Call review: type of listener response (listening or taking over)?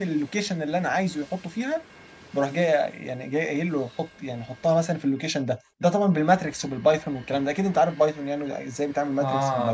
taking over